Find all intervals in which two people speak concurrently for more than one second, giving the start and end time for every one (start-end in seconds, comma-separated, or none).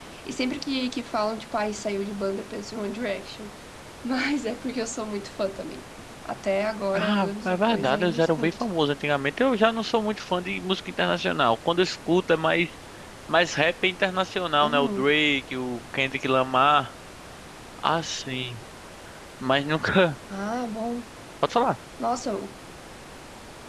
6.9-8.6